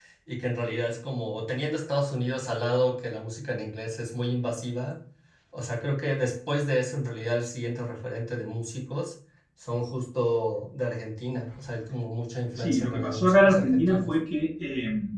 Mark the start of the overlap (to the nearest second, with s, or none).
13 s